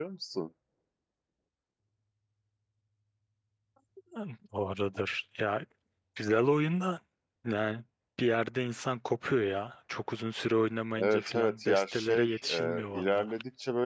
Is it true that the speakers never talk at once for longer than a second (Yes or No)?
No